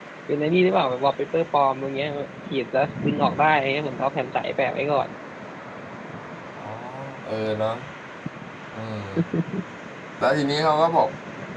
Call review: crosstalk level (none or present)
none